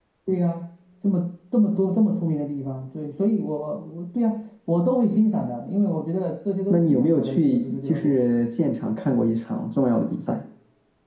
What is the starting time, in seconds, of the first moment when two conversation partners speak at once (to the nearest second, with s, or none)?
7 s